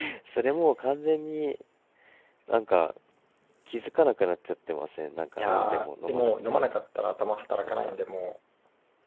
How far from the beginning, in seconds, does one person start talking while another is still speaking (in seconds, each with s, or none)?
5.4 s